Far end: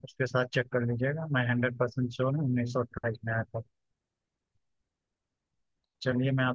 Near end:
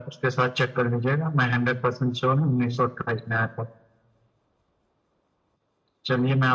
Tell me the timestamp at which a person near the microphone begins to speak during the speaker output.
none

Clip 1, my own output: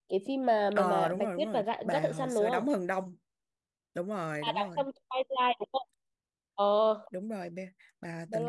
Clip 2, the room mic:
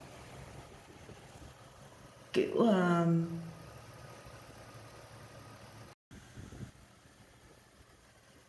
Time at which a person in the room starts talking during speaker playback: 2.3 s

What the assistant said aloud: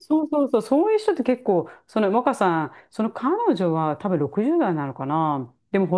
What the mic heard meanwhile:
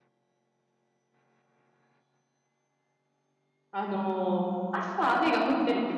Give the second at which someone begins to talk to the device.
3.7 s

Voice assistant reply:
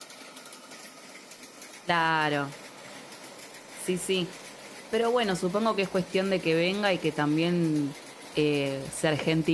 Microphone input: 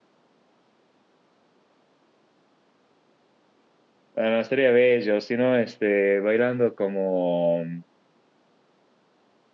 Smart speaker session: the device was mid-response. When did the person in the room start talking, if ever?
4.1 s

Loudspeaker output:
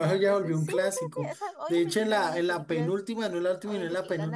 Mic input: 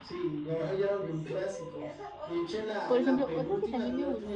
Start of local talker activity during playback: 2.9 s

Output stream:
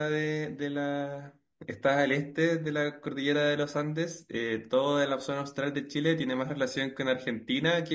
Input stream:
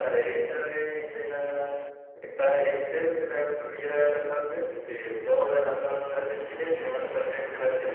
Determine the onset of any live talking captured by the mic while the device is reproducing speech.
none

